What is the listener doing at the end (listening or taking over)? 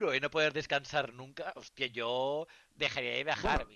listening